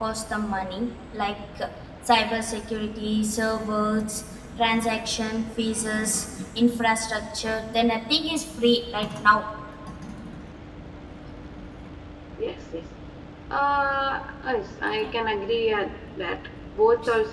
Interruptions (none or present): none